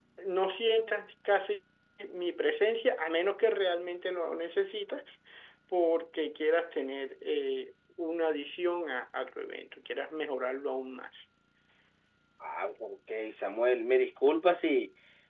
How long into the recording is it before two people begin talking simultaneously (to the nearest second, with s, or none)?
none